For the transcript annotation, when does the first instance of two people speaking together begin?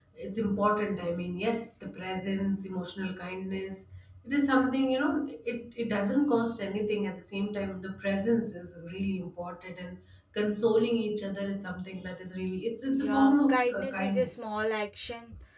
13 s

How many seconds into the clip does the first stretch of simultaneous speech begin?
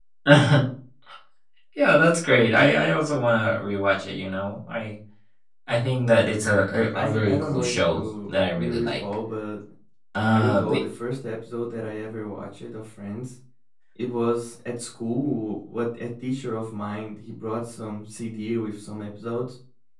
7 s

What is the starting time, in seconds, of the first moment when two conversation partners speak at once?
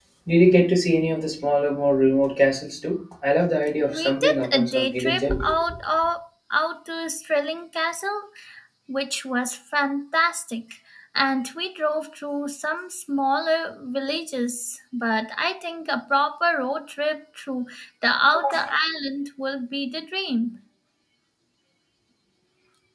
4 s

